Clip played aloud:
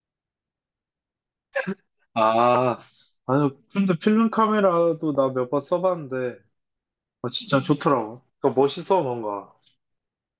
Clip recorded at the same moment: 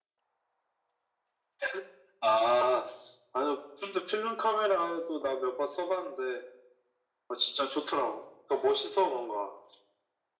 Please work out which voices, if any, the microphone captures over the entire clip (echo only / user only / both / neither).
echo only